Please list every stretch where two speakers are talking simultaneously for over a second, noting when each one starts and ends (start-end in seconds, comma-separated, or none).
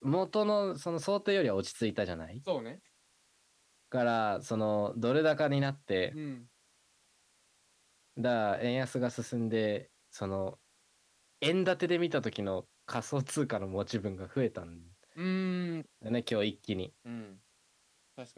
none